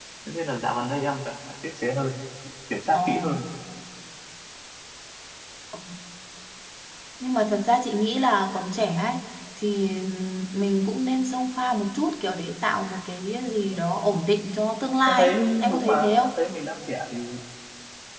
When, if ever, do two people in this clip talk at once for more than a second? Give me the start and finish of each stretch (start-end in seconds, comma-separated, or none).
15.1-16.4